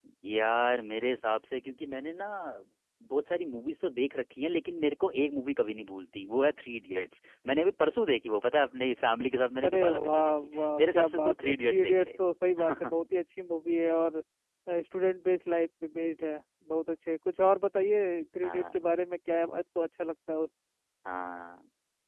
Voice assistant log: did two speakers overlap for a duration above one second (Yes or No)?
Yes